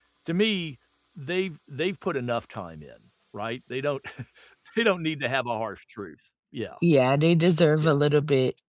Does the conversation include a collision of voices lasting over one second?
No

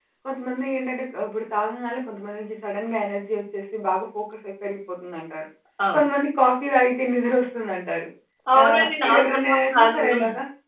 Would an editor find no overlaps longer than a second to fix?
No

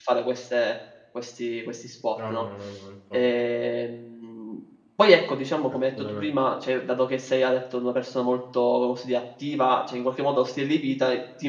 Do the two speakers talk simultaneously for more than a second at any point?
No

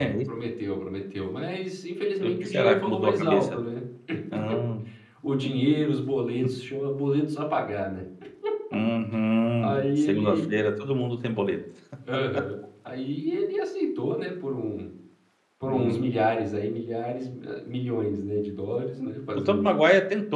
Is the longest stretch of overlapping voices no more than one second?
No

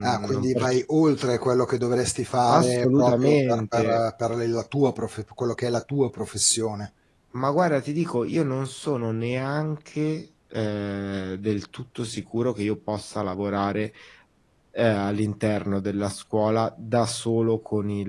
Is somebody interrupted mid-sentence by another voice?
Yes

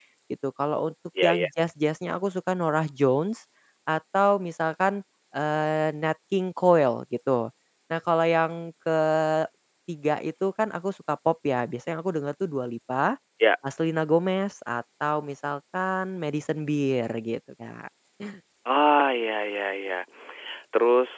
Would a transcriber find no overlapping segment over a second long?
Yes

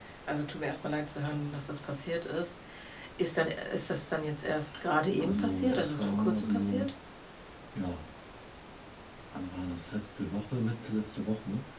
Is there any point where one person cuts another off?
Yes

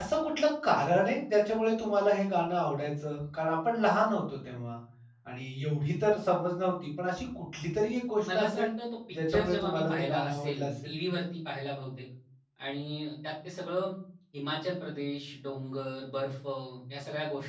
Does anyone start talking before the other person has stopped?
Yes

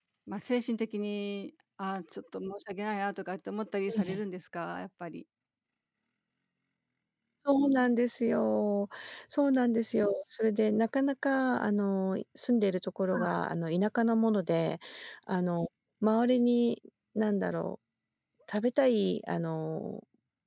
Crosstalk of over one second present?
No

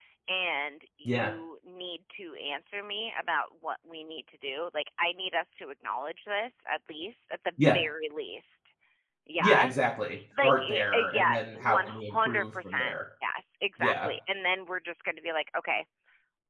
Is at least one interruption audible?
Yes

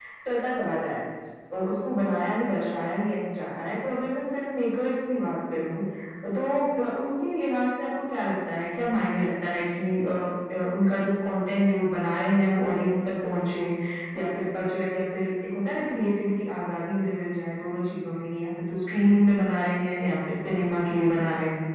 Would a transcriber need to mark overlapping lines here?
No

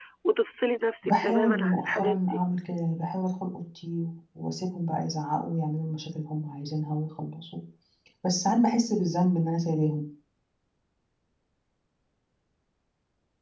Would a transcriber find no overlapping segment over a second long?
No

